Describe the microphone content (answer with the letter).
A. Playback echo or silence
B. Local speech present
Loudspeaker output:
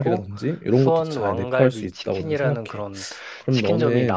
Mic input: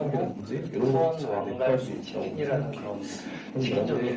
A